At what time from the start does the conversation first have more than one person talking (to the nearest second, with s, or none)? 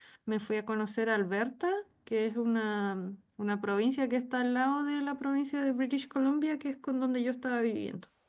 none